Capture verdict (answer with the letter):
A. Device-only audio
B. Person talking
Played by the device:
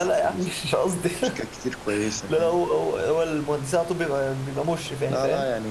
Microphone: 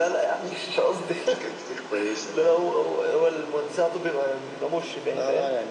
A